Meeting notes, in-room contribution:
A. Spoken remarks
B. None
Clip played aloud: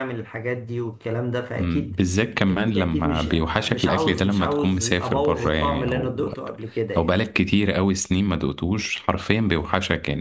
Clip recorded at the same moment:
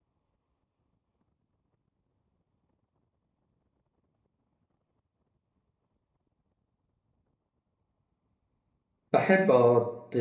A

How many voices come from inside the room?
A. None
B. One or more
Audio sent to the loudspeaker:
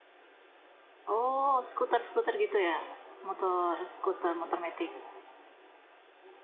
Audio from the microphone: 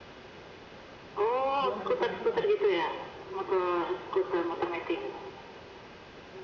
B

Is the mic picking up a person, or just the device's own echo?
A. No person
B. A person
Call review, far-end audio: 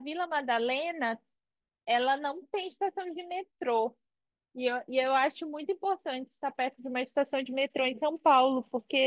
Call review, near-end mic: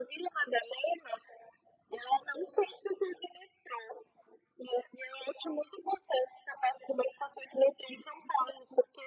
A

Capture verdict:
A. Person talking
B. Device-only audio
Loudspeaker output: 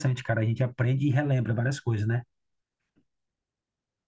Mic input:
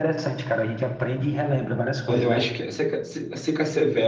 A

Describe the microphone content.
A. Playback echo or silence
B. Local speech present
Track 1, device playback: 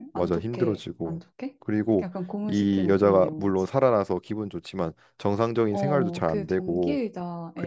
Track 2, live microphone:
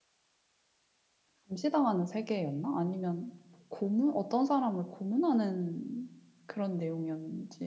B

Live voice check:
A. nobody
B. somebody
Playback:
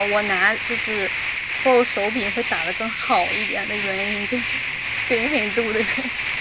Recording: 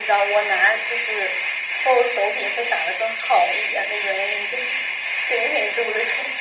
A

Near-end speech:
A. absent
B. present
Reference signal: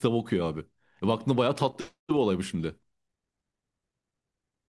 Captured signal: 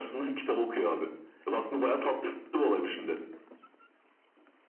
A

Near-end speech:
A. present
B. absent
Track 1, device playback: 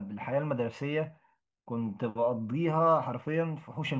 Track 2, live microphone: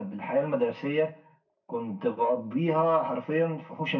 B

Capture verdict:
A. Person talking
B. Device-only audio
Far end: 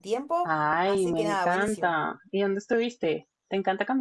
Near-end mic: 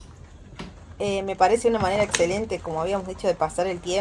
A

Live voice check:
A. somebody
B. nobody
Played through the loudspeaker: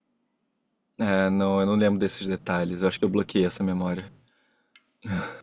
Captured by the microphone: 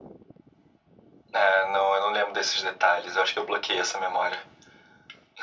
B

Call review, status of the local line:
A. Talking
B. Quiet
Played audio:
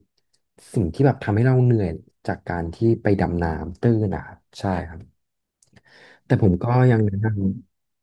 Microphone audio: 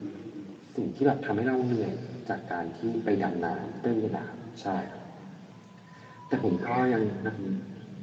B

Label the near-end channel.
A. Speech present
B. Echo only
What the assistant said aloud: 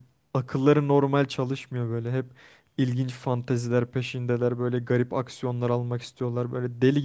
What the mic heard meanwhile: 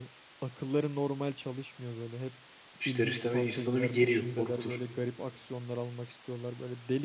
A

